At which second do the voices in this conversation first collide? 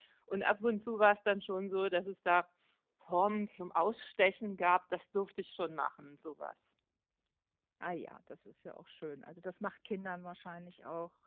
none

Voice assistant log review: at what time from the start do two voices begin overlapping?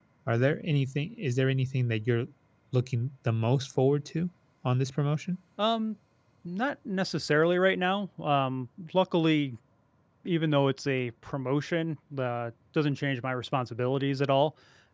none

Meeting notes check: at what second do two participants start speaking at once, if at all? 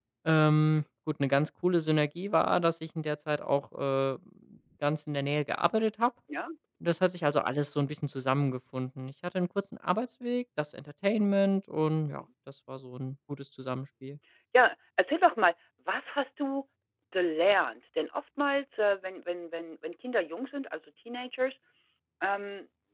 none

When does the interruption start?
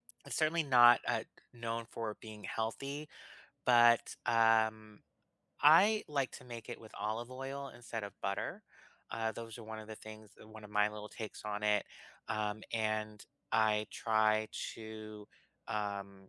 none

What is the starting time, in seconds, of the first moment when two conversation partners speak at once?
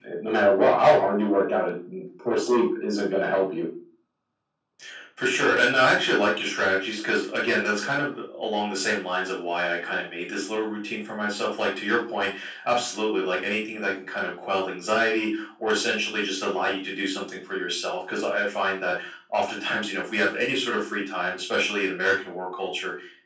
none

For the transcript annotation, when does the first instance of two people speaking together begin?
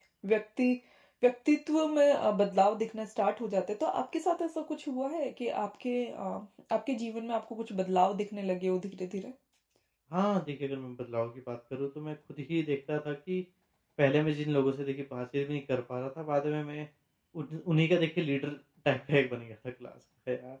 none

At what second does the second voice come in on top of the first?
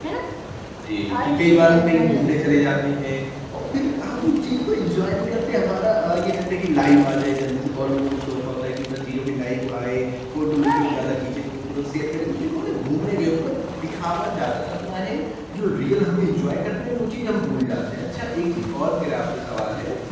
1.1 s

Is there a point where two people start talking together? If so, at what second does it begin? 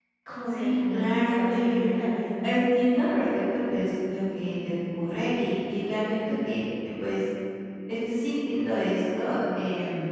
0.6 s

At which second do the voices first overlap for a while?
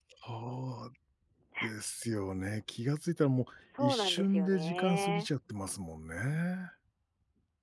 3.6 s

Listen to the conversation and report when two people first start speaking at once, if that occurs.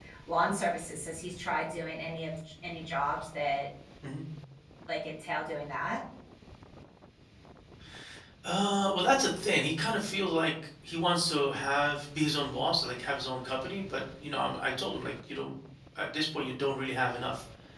none

